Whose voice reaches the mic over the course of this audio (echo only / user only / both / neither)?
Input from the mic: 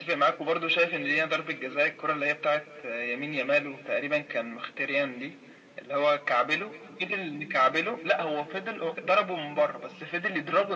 echo only